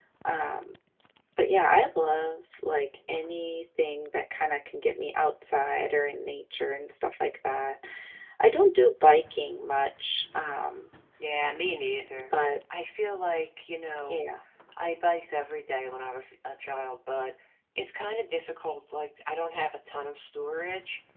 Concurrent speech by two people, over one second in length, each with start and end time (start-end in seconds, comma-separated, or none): none